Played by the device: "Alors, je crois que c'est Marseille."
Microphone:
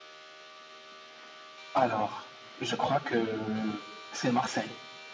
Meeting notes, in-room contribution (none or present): none